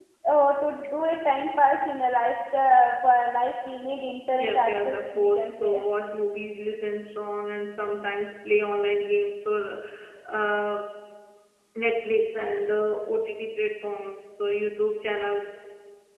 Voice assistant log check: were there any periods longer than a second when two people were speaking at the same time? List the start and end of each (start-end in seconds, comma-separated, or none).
4.4-5.8